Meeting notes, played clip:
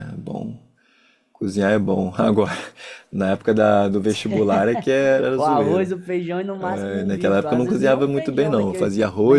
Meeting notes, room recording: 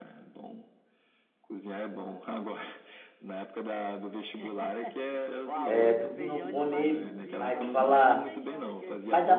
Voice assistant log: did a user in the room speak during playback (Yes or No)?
Yes